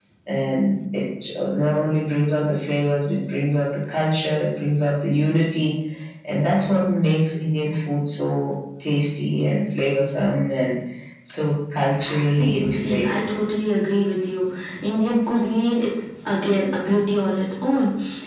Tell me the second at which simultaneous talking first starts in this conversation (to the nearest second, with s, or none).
12 s